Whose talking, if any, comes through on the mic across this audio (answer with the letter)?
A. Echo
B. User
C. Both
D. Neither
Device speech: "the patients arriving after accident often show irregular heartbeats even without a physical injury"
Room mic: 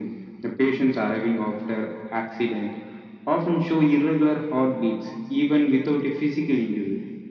A